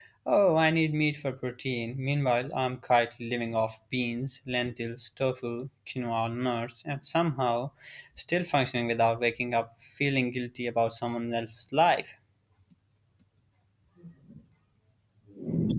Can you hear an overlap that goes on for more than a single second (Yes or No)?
No